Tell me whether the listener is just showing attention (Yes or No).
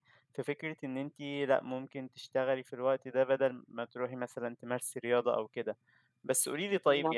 Yes